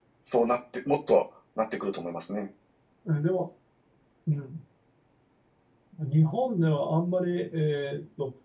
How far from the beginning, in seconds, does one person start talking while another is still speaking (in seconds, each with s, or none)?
none